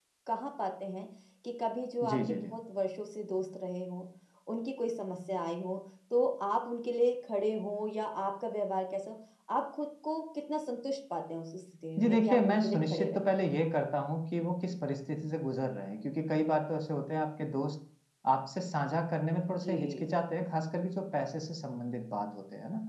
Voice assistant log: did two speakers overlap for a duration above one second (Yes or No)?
Yes